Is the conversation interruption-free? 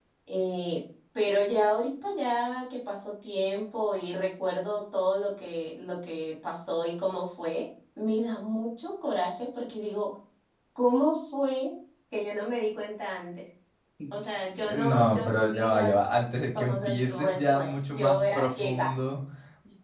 No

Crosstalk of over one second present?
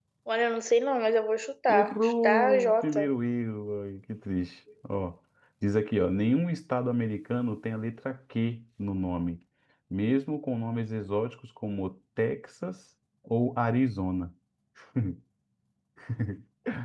Yes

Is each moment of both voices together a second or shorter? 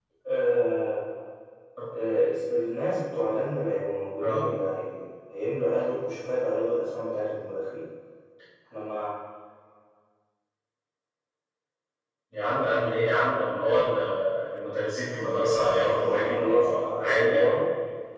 No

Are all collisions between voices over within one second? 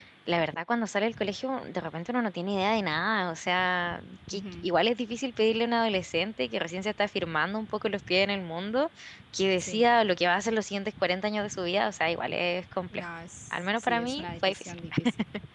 No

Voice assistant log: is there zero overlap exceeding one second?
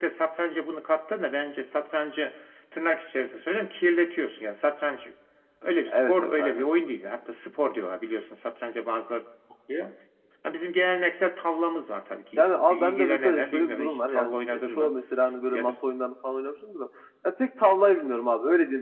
No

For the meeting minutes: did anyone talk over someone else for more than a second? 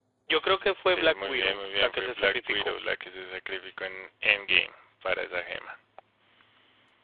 Yes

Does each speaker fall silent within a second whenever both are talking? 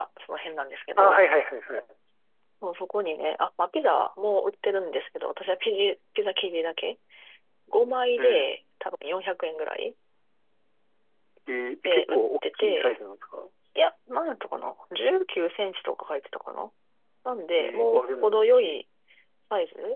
No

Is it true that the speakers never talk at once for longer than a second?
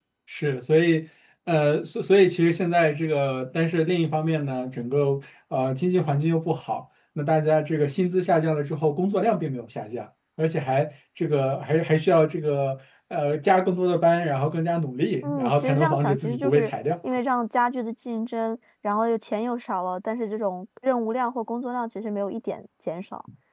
No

